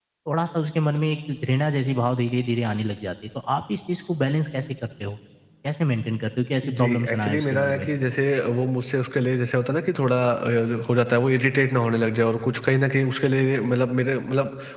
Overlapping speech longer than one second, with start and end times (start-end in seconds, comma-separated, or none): 6.7-7.9